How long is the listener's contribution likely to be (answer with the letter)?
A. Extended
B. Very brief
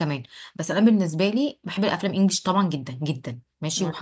B